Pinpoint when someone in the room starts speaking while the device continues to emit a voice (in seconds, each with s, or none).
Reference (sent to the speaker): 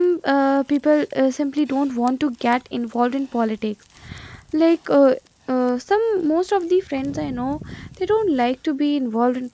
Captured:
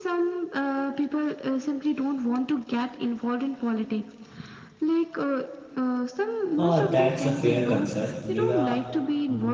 6.6 s